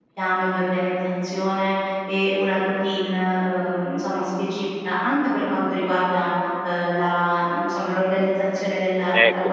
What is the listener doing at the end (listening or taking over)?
taking over